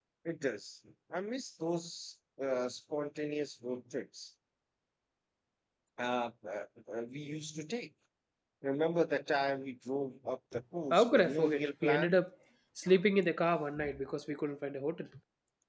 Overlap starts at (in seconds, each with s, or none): 10.9 s